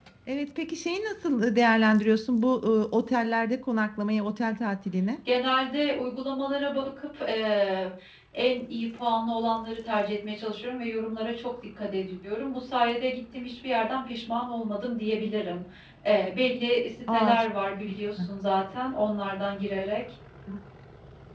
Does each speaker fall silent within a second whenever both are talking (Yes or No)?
Yes